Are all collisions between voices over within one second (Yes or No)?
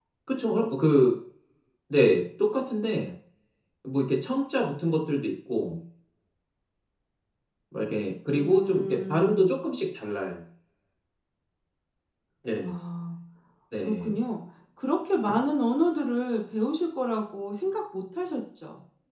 No